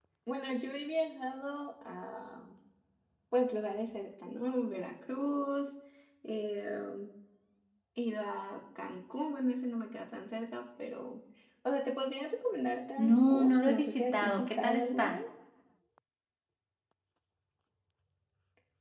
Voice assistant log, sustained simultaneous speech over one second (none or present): present